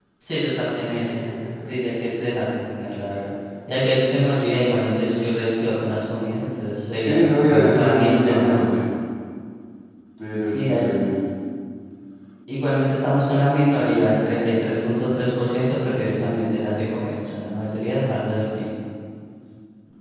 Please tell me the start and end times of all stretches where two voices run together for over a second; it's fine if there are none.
7.0-8.7

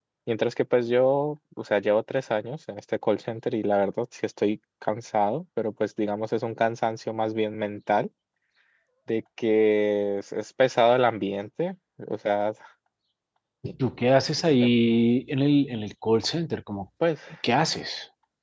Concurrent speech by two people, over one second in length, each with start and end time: none

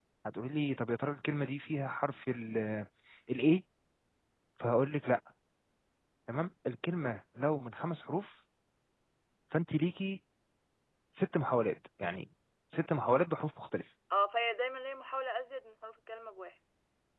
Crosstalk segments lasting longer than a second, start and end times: none

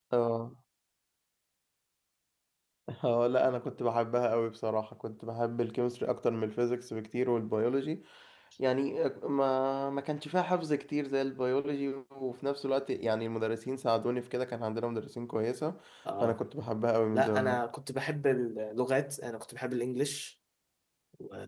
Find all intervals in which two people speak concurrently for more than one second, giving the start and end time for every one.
none

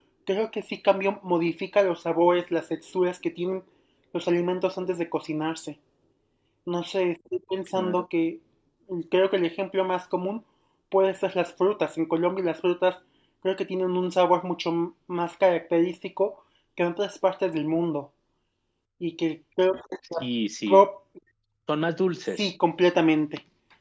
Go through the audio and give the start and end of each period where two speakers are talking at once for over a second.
none

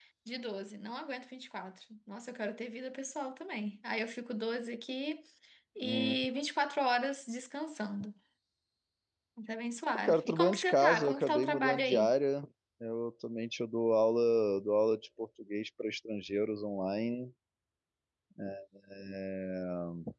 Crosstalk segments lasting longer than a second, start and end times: 10.0-12.1

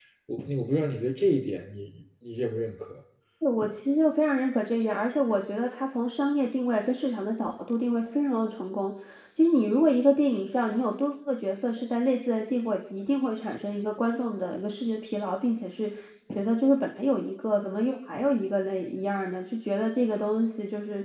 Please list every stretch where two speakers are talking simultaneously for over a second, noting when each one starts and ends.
none

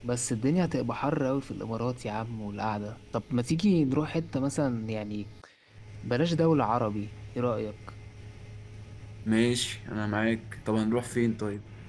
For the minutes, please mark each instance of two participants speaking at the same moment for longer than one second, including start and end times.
none

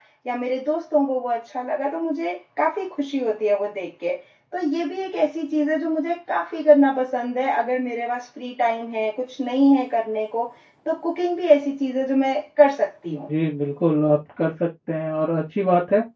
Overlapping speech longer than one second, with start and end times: none

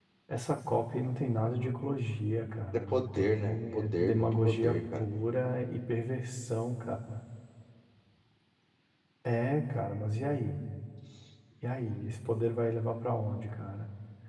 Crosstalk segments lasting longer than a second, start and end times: 2.7-5.0

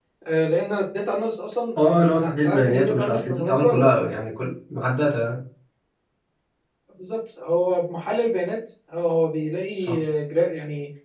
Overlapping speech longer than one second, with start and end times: 1.8-3.9

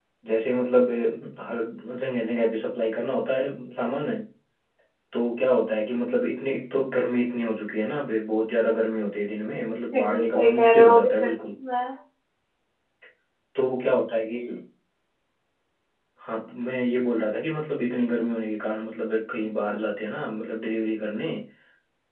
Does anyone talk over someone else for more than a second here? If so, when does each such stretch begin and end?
10.0-11.3

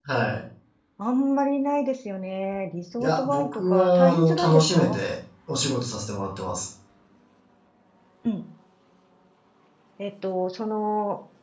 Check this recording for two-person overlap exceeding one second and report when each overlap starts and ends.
3.0-5.0

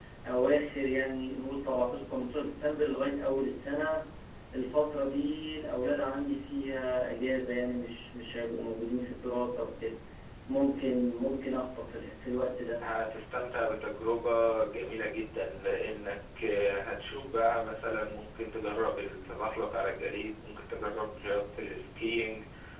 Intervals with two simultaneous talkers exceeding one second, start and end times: none

